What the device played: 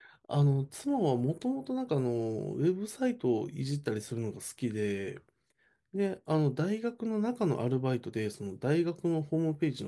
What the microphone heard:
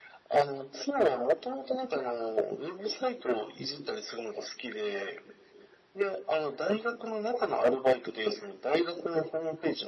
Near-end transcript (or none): none